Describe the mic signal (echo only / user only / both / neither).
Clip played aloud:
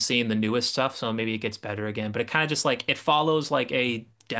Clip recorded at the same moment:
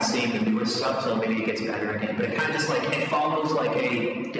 echo only